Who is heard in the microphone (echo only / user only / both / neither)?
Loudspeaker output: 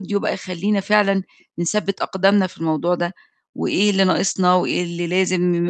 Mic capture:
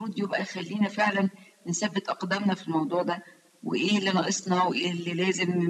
echo only